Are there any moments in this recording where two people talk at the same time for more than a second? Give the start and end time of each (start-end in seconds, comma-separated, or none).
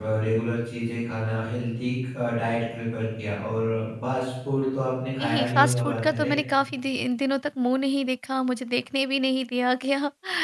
5.2-6.4